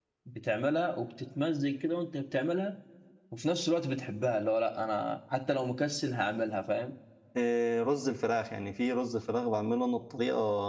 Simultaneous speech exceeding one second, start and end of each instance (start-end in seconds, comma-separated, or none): none